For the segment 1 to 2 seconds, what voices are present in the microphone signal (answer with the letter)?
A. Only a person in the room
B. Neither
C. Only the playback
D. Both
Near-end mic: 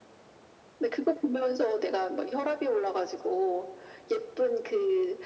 C